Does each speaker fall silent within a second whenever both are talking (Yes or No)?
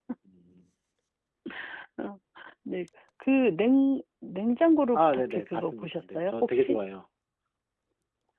No